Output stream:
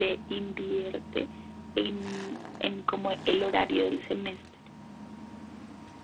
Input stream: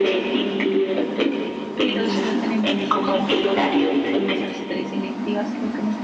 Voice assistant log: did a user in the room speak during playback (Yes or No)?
Yes